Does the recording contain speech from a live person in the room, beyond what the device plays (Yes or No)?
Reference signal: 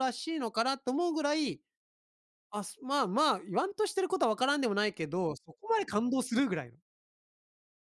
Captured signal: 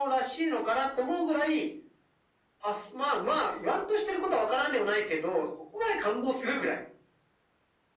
No